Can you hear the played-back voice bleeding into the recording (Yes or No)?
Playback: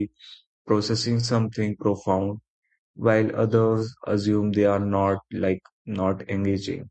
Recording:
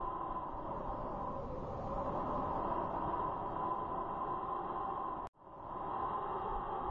No